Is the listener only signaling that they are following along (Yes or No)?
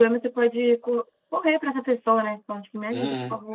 No